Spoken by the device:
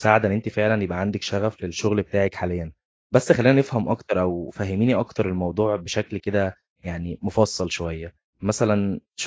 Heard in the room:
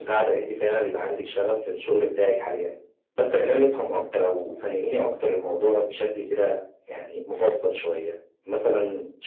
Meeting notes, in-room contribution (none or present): none